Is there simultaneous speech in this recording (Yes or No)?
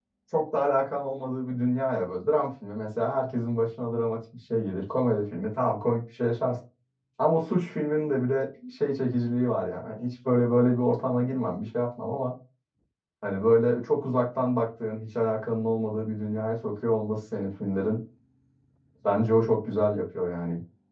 No